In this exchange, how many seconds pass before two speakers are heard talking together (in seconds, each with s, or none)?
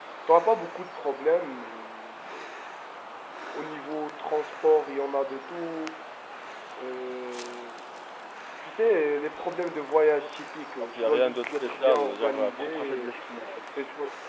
10.9 s